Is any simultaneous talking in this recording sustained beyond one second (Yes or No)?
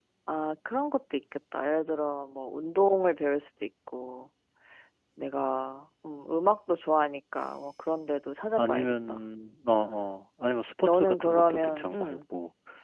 Yes